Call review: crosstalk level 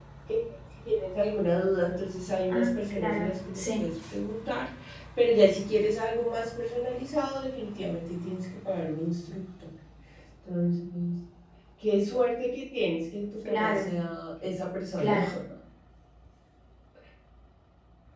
present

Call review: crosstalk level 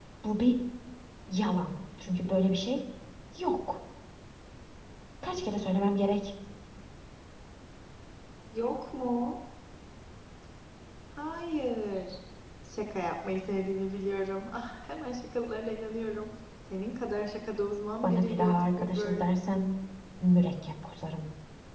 present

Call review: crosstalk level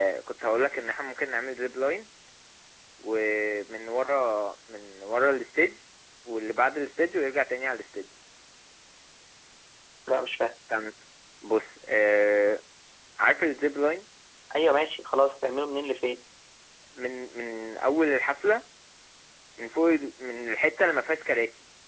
none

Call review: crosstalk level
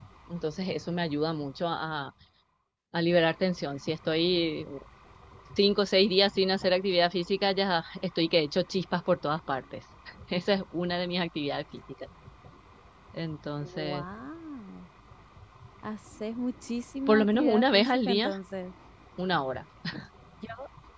present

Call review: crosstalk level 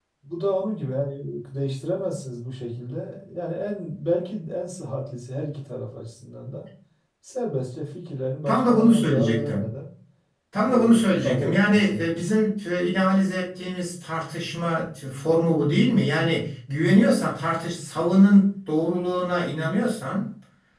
present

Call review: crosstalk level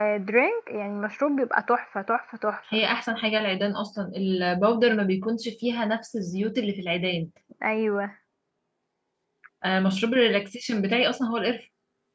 none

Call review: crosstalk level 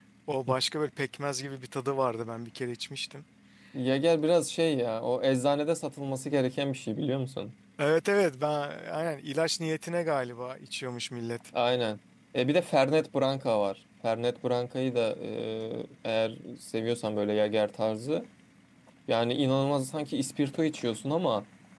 none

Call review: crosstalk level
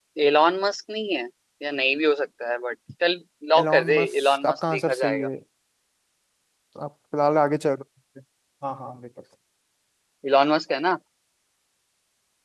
present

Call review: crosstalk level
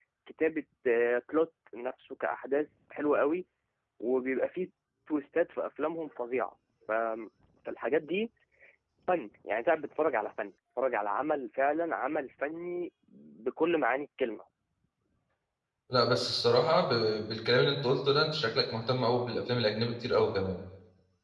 none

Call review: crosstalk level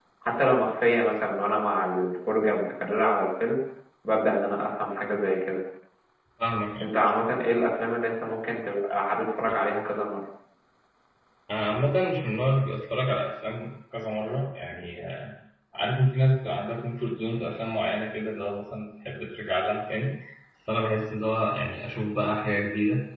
none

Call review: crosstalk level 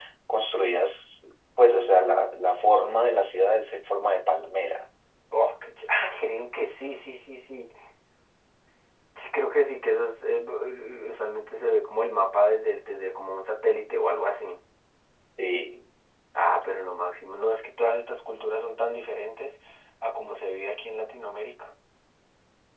none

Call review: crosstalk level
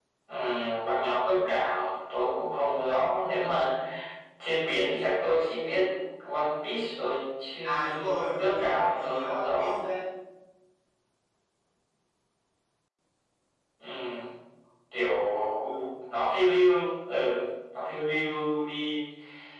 present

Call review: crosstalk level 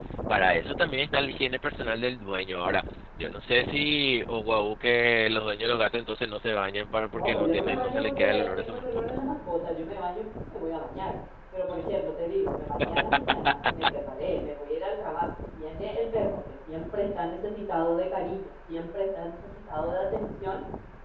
present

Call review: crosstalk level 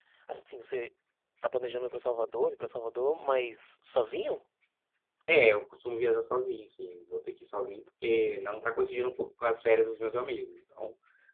none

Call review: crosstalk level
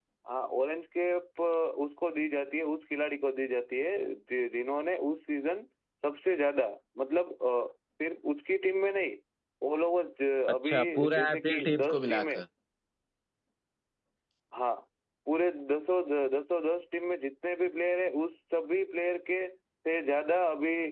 present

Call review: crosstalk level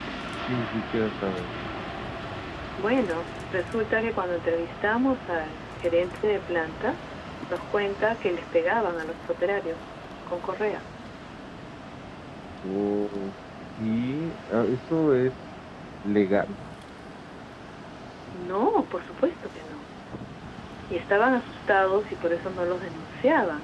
none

